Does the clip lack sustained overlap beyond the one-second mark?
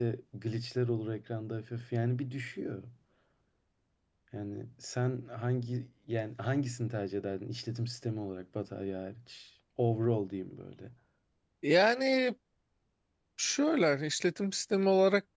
Yes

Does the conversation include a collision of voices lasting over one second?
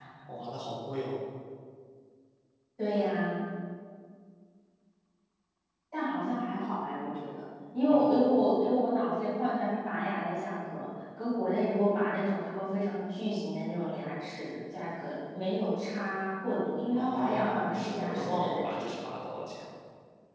Yes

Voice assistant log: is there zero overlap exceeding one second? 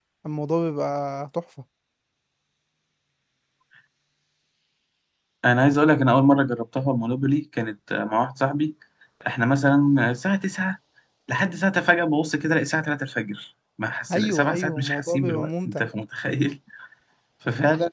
No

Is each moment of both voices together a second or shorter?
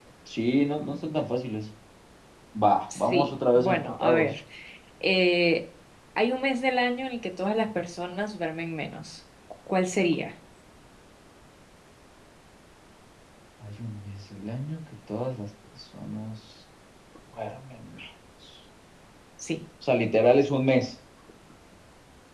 No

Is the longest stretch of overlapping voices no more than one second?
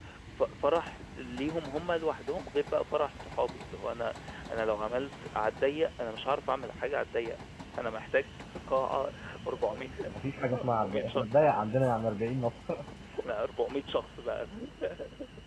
No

